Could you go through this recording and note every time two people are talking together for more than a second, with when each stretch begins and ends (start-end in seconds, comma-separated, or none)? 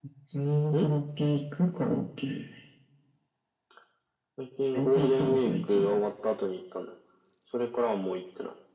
4.7-6.0